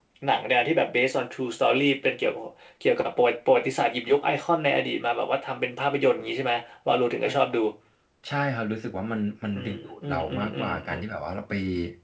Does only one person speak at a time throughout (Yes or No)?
No